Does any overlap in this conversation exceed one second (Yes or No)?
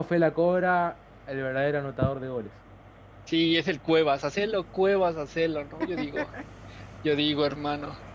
No